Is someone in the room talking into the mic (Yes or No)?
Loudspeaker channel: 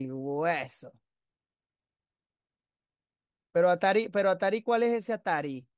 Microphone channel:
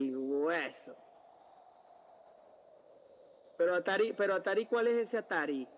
No